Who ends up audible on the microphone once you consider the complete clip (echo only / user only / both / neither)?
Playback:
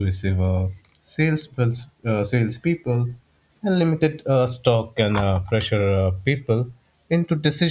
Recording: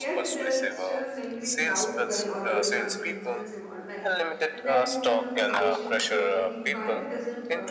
both